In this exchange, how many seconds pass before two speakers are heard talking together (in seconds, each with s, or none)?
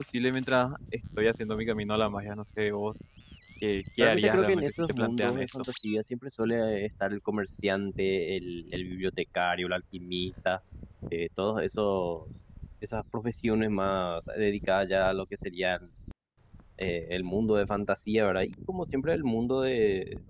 4.0 s